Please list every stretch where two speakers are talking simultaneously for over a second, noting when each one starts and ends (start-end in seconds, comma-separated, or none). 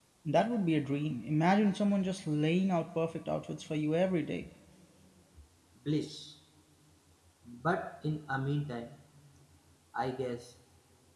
none